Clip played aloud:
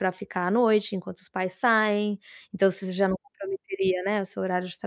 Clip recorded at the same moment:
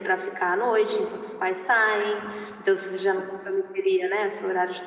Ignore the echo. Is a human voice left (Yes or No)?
No